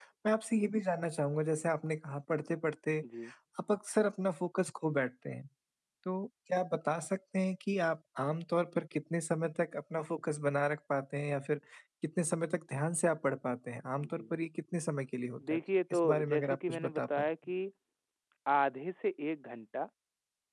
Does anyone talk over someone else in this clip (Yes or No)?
Yes